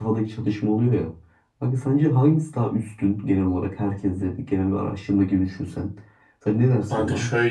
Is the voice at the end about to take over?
Yes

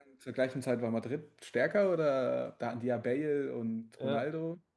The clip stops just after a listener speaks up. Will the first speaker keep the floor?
No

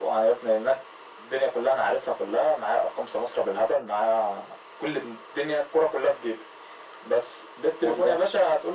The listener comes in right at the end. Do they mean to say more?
No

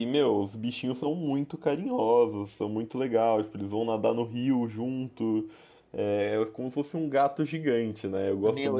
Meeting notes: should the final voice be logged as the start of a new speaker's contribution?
Yes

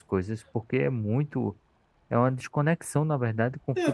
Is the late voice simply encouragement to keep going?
No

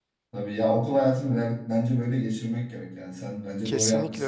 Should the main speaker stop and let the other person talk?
Yes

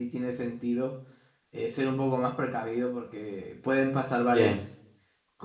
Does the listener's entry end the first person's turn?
No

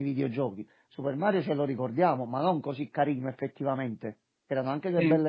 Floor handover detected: No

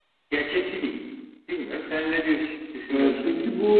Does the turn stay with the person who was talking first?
No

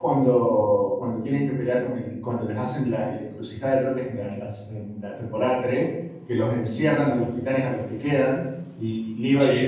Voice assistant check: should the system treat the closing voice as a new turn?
No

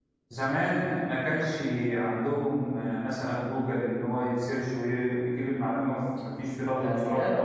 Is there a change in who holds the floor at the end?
Yes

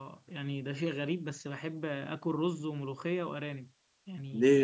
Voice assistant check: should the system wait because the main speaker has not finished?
No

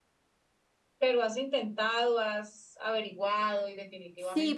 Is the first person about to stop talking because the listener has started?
Yes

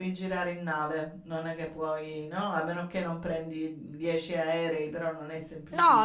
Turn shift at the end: Yes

